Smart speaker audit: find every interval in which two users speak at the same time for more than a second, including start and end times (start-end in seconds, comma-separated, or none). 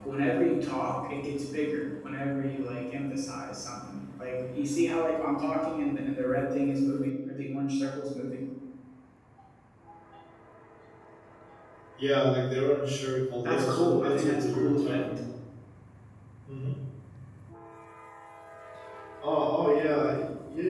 13.4-15.0